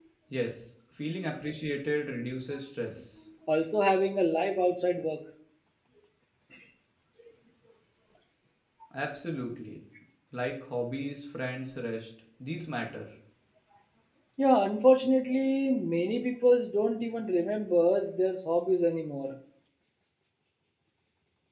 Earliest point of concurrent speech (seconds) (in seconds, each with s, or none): none